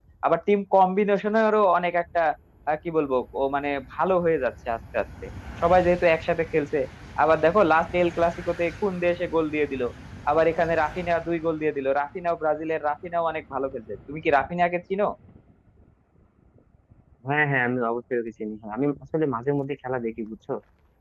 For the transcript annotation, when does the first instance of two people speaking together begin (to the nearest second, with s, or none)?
none